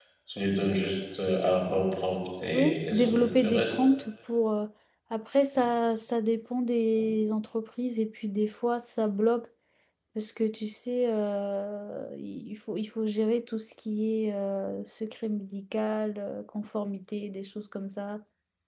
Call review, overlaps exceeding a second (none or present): present